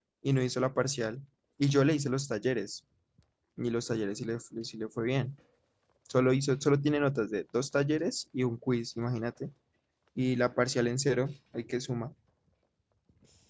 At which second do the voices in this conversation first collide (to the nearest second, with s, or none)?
none